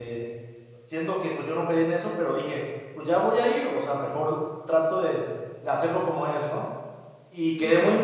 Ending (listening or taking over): listening